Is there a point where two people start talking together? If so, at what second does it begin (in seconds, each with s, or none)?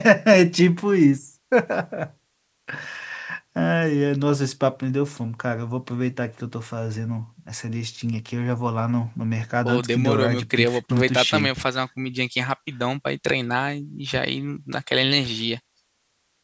9.7 s